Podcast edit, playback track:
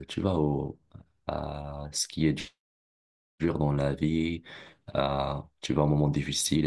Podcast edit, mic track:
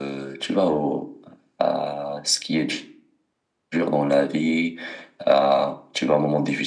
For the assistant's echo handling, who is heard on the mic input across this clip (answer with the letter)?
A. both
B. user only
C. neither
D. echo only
D